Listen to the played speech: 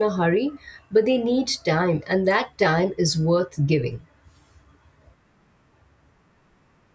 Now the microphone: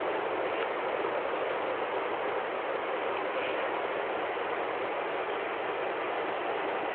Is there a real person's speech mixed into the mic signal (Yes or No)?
No